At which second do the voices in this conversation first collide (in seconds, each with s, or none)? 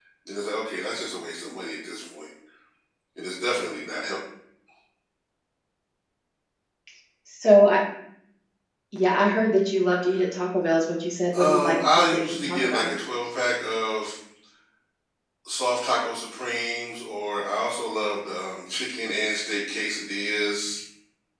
11.3 s